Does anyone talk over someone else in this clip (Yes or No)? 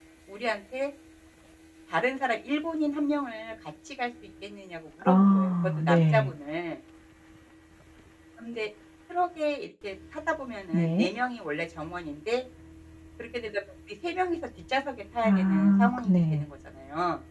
Yes